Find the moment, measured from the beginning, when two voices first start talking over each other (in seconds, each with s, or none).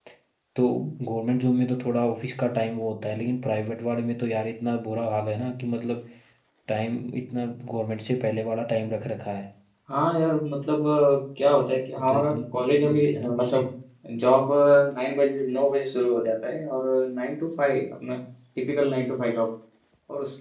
12.0 s